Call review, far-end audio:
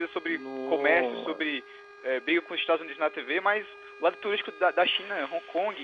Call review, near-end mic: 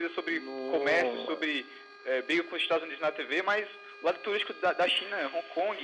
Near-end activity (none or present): none